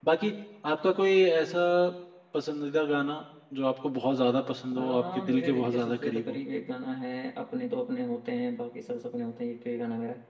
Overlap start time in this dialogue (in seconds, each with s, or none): 4.7 s